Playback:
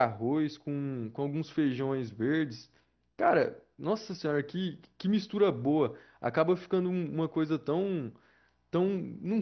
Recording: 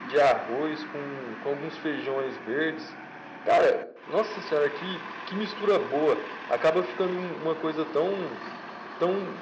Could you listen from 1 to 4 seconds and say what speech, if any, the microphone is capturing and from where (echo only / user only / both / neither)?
echo only